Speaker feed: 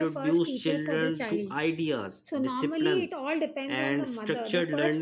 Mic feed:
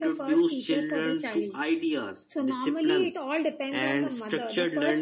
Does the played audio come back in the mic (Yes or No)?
Yes